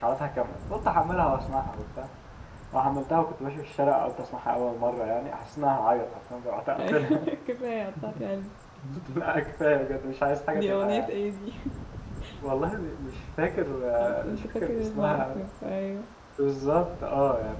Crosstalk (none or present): present